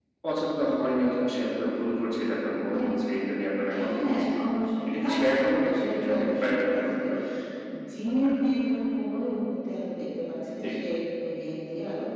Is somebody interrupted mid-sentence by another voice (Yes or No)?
Yes